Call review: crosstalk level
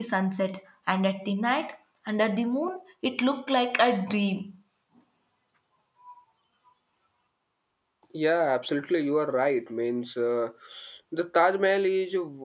none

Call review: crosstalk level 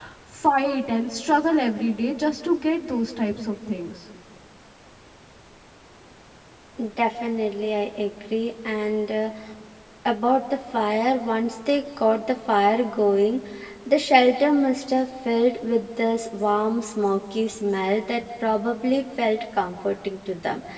none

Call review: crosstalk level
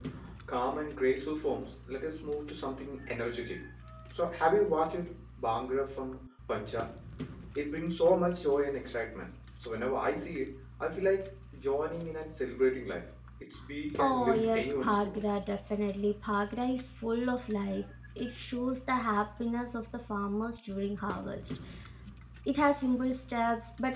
present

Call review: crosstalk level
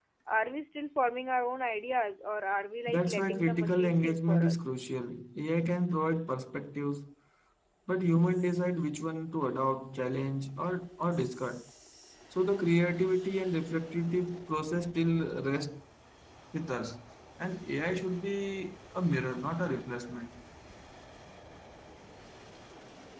present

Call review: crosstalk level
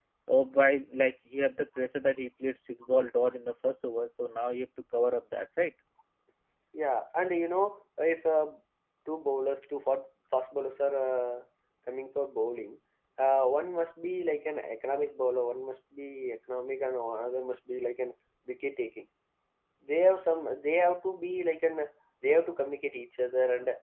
none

